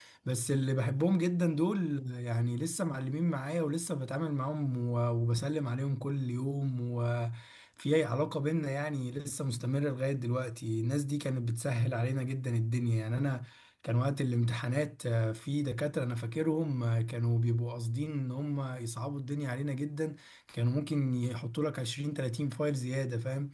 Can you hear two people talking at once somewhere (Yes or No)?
No